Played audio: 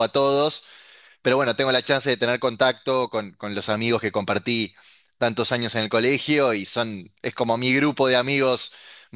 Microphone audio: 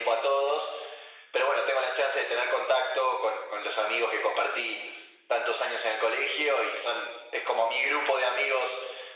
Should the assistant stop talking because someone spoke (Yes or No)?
No